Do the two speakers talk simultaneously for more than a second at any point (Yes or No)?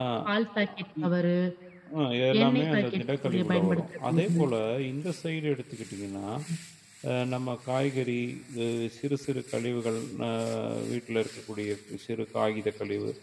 Yes